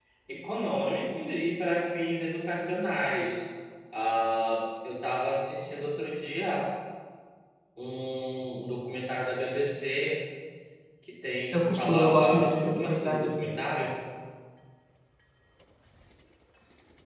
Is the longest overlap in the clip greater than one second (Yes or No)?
Yes